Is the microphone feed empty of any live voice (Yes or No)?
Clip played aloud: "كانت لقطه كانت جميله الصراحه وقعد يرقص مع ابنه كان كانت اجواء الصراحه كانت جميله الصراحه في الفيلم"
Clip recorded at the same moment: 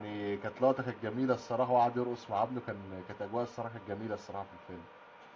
Yes